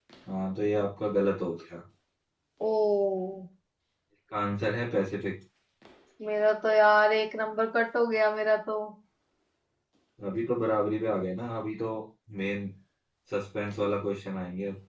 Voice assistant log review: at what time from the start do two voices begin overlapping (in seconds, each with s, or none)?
none